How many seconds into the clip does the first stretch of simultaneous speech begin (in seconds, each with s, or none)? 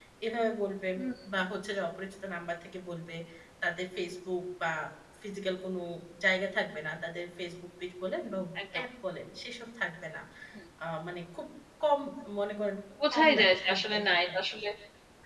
13.1 s